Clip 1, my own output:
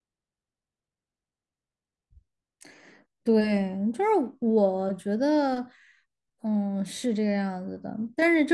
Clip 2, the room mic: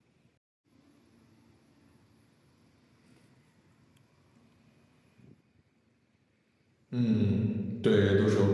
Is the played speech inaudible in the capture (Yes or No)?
Yes